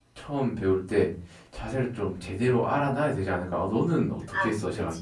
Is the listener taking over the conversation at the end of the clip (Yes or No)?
Yes